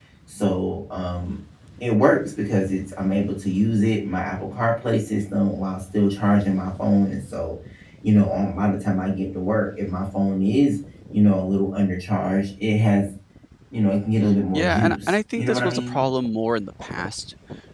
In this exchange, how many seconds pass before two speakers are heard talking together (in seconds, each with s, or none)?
14.5 s